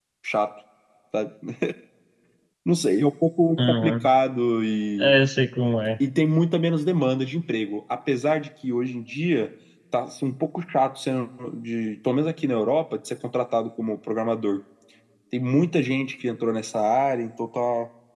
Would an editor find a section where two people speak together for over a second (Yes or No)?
No